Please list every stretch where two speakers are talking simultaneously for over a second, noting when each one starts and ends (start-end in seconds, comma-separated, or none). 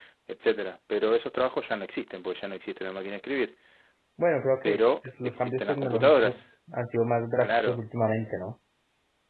4.6-6.4